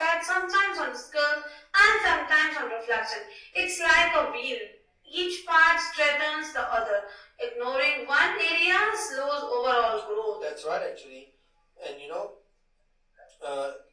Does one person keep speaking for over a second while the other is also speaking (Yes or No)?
No